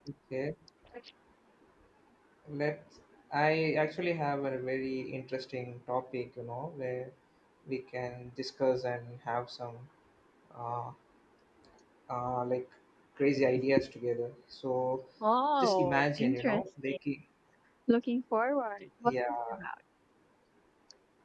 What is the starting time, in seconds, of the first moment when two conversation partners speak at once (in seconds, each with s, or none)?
15.6 s